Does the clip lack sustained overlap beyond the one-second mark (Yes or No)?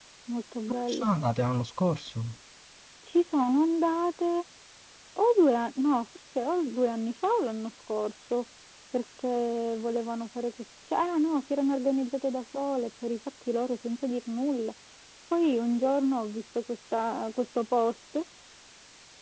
Yes